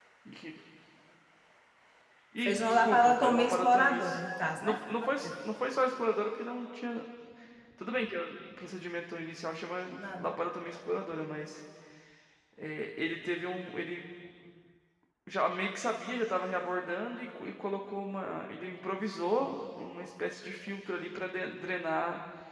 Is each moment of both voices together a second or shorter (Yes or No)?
No